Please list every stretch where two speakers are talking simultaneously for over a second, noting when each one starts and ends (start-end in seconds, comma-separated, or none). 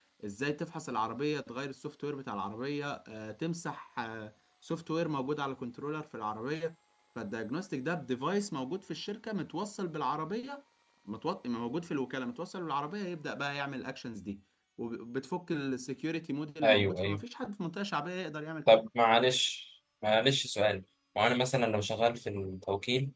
none